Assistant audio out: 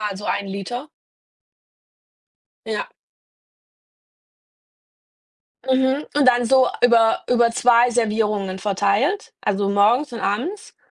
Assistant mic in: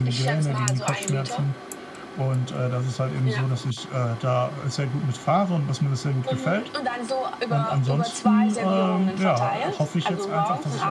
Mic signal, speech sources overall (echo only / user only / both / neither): both